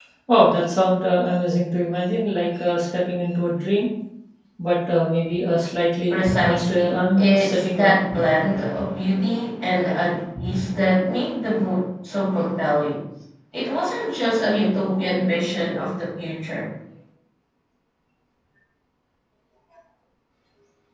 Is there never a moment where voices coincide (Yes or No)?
No